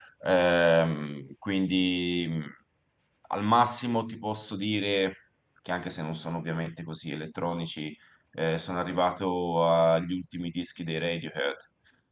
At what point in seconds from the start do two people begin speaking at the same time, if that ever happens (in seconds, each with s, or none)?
none